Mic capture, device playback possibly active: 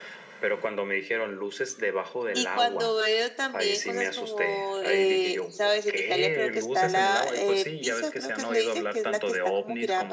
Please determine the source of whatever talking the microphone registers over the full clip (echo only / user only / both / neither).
both